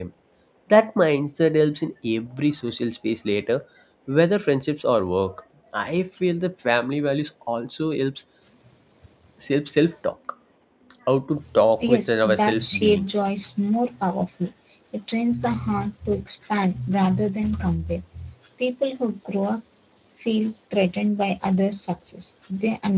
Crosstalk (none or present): present